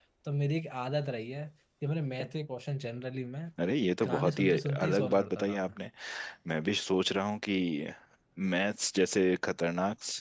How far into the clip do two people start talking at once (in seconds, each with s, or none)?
4.0 s